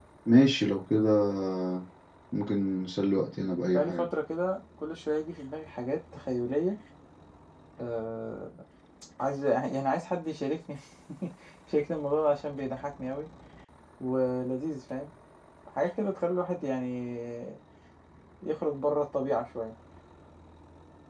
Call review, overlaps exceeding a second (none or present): none